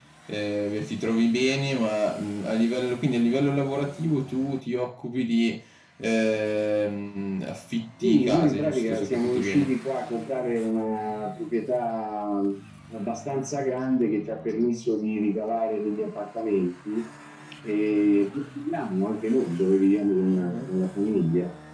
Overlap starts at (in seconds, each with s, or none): 8.0 s